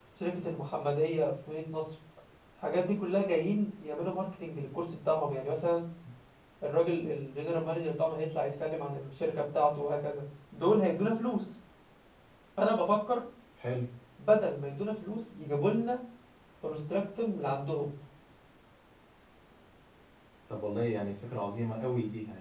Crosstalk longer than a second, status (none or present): none